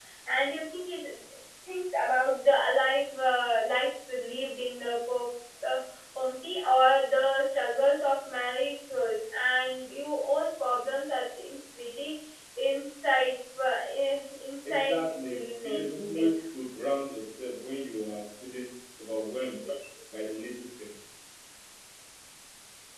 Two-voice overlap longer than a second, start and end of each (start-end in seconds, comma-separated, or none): 14.6-15.9